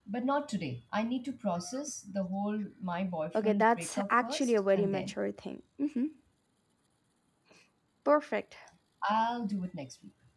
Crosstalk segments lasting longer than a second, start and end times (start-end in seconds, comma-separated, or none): 3.4-5.1